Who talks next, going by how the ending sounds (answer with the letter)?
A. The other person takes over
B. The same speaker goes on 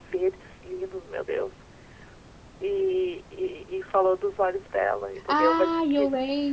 A